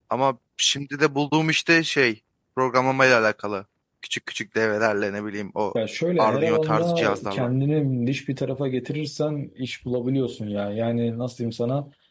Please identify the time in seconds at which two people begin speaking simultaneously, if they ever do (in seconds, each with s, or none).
6.2 s